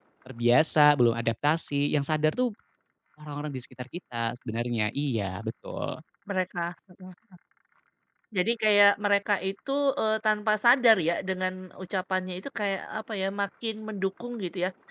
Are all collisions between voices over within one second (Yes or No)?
Yes